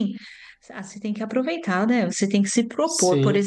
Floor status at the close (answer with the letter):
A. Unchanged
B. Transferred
A